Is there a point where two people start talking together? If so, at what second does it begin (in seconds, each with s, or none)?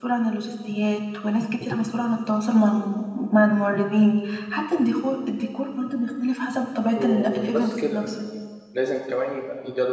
7.0 s